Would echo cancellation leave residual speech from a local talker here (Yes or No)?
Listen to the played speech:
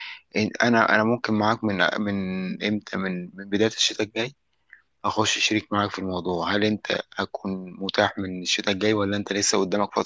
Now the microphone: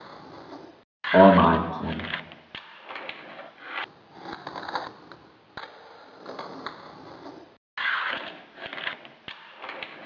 Yes